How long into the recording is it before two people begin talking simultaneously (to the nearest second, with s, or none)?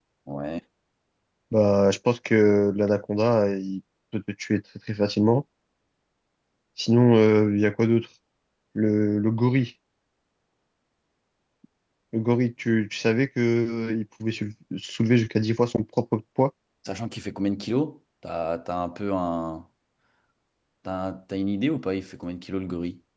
none